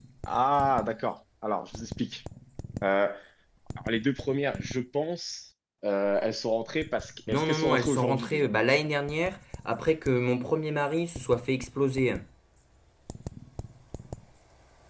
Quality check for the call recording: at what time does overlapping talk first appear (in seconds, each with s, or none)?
7.3 s